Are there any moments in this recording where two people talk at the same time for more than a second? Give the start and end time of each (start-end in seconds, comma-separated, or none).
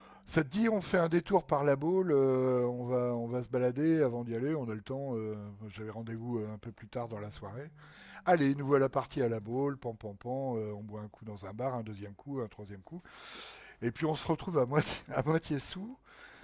none